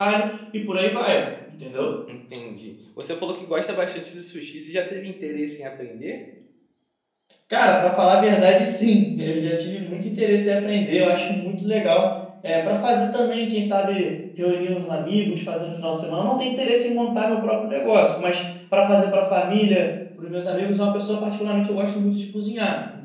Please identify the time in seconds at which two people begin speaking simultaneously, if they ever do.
none

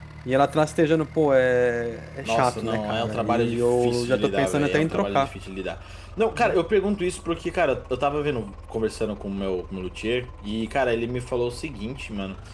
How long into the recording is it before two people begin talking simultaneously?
2.2 s

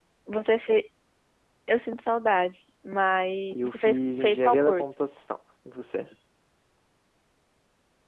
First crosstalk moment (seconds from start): 3.5 s

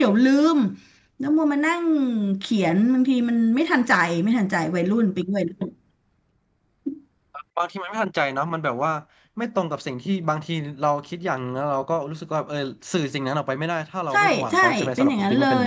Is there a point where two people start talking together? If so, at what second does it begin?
14.1 s

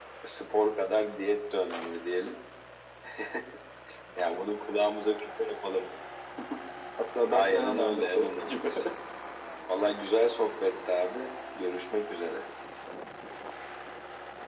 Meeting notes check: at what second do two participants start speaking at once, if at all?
7.3 s

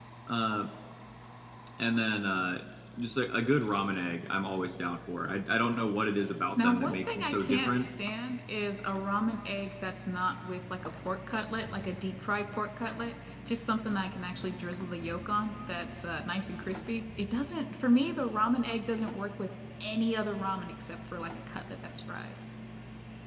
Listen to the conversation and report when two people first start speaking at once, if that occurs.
6.6 s

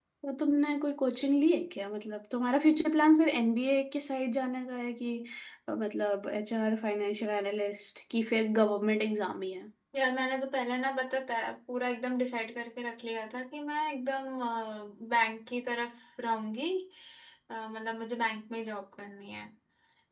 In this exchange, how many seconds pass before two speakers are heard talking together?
none

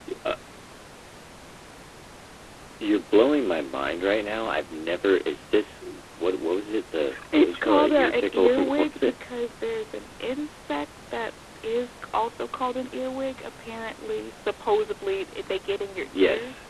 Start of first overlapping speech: 7.4 s

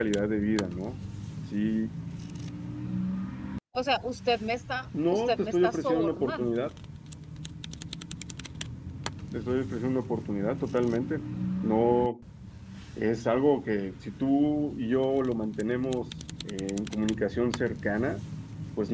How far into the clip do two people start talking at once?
4.9 s

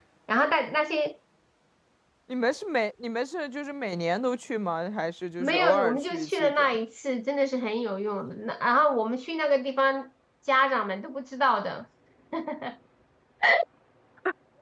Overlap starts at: 5.4 s

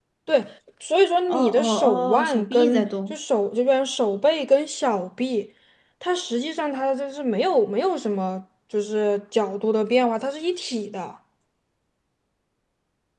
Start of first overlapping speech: 1.3 s

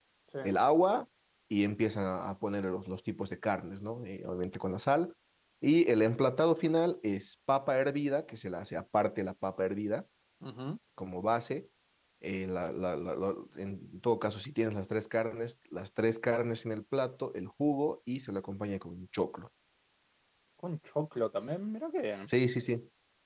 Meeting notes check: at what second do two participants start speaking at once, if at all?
none

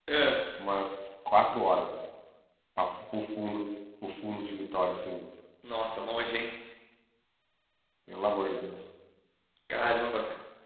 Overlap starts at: none

